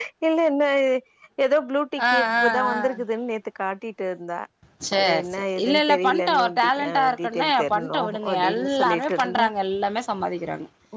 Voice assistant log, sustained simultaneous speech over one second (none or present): present